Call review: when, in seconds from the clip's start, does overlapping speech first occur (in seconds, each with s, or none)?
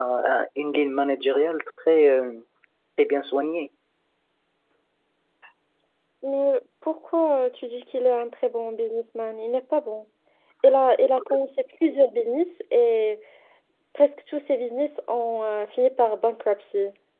none